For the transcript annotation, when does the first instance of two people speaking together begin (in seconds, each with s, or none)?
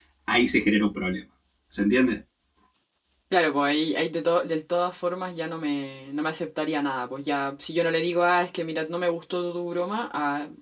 none